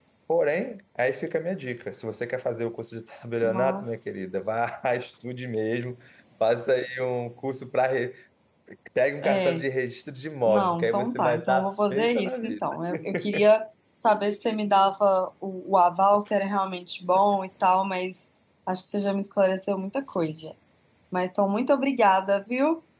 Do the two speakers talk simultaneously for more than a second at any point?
Yes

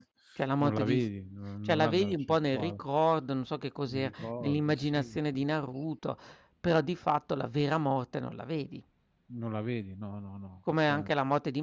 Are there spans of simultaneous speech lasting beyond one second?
Yes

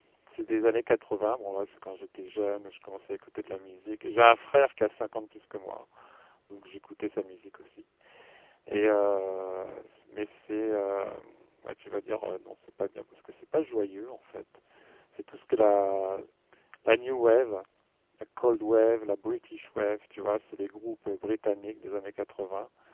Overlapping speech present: No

